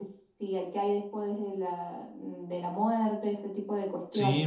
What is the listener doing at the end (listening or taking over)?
taking over